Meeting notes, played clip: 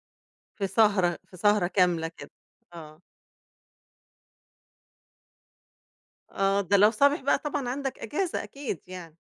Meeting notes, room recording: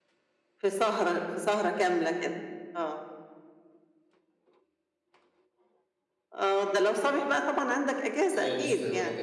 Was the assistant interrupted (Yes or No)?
Yes